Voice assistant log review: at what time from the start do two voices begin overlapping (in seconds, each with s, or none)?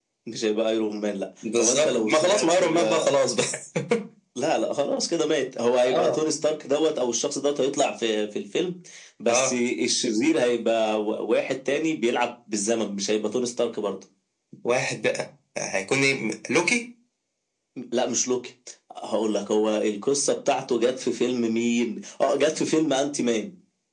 1.6 s